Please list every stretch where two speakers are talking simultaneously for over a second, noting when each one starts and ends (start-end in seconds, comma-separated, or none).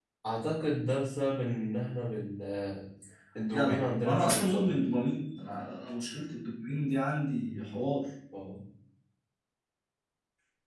3.5-4.8